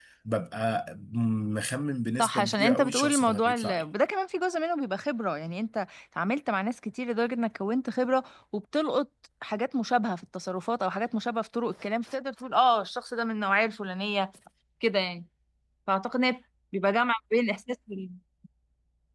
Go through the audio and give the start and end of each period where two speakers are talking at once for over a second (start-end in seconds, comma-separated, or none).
2.2-3.8